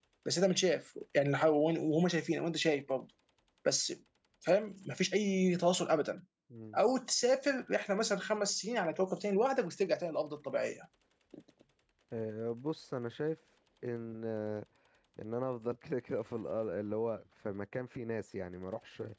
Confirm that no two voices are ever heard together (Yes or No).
Yes